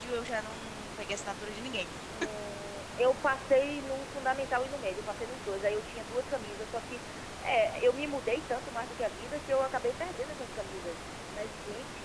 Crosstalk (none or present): none